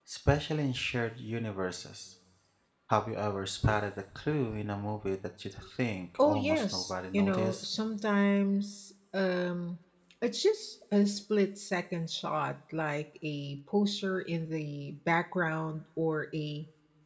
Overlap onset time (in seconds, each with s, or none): 6.2 s